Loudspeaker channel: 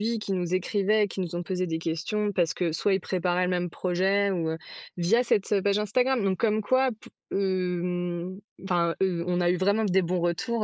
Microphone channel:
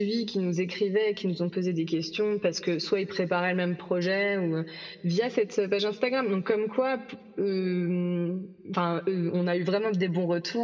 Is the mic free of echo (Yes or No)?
No